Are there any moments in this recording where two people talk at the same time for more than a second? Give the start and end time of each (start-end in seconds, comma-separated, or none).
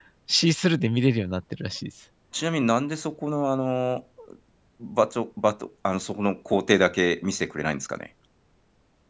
none